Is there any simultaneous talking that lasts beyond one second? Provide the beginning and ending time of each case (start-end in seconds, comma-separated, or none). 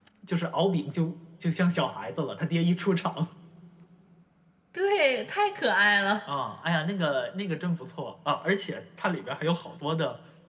none